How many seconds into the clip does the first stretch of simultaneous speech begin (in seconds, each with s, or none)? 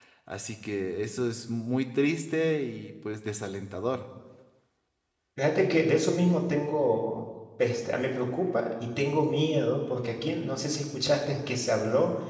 none